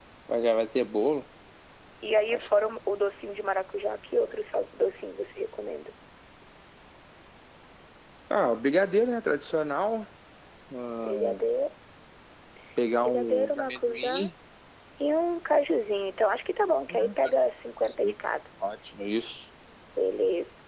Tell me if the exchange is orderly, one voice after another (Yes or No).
No